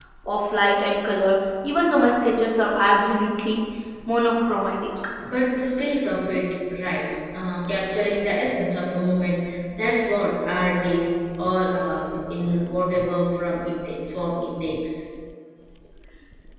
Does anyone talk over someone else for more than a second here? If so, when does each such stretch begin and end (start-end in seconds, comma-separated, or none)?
none